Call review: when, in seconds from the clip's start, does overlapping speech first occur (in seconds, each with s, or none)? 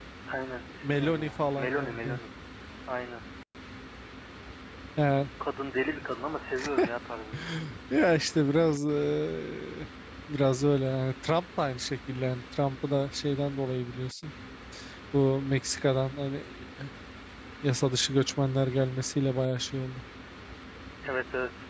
0.8 s